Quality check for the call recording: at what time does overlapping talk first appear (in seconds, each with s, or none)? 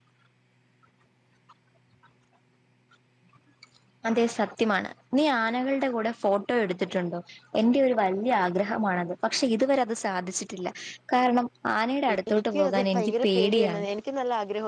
12.1 s